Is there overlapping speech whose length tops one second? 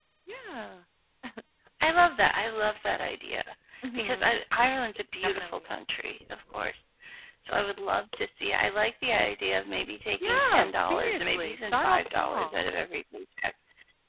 Yes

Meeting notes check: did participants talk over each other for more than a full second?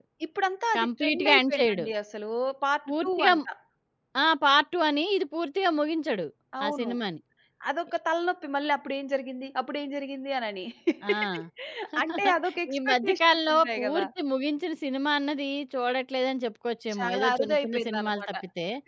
Yes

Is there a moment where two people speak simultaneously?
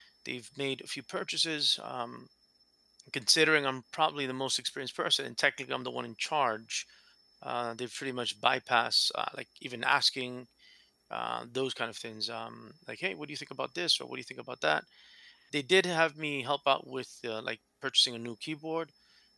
No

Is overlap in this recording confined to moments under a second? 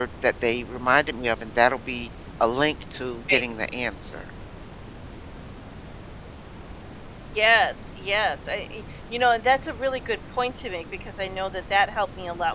Yes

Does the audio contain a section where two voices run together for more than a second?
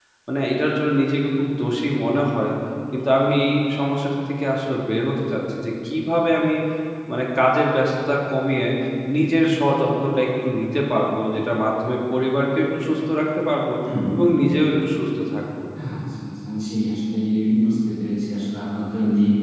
No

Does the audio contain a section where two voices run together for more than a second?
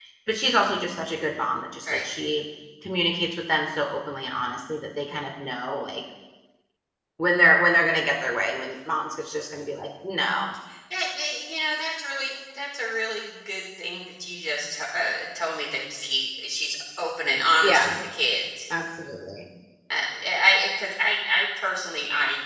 No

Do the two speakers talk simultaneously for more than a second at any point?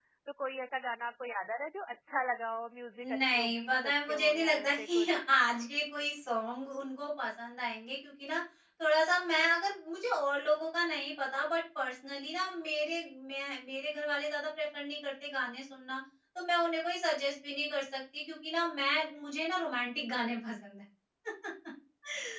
Yes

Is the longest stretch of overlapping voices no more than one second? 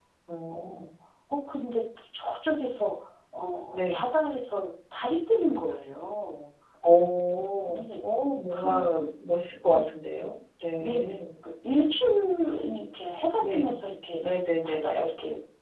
Yes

